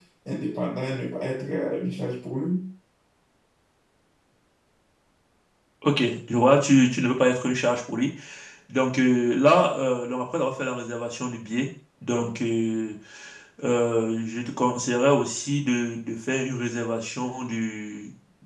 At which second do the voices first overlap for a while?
none

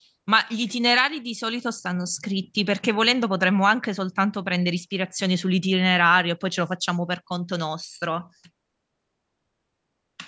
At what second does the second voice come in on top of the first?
none

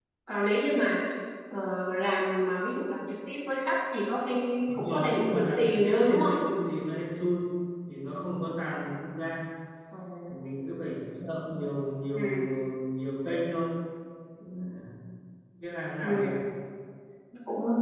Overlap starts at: 4.7 s

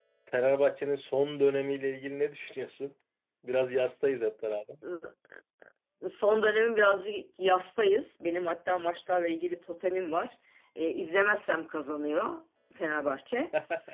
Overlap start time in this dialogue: none

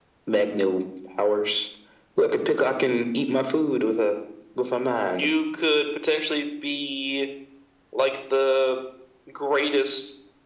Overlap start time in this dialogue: none

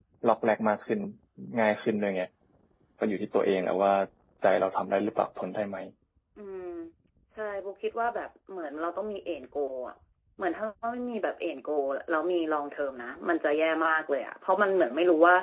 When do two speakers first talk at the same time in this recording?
none

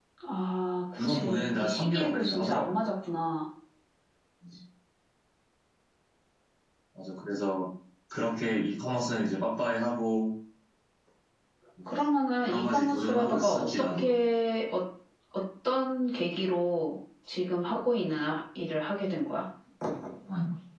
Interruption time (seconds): 1.1 s

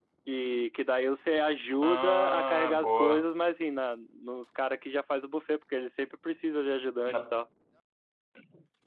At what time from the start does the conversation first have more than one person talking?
1.8 s

